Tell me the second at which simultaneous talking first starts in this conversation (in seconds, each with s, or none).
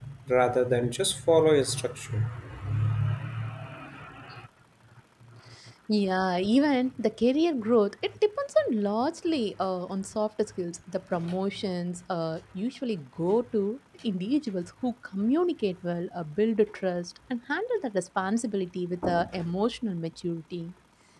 none